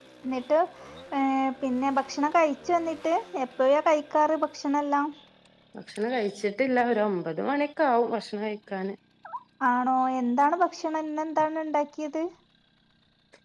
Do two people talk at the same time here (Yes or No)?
No